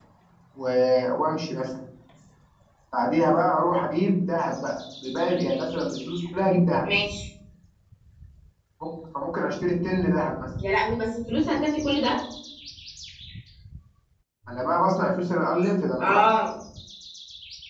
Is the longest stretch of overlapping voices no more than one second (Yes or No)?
Yes